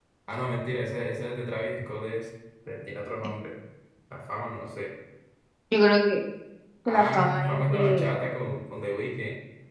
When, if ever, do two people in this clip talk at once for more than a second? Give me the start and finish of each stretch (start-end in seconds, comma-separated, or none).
6.9-8.1